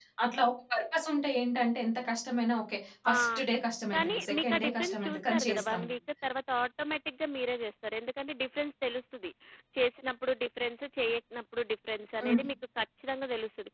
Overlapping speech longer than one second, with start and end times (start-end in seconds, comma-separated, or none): 3.9-5.8